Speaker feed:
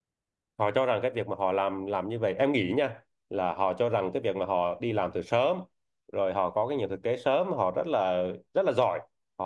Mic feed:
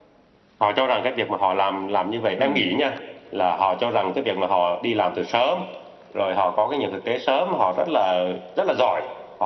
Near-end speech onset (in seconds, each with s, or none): 2.4 s